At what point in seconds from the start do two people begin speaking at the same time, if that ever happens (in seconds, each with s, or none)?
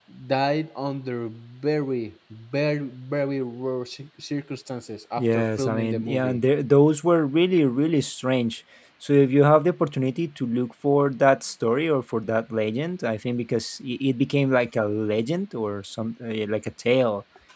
5.2 s